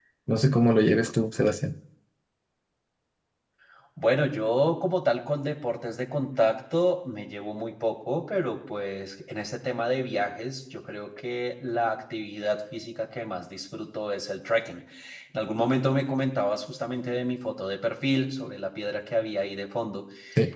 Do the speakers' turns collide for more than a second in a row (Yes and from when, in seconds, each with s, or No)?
No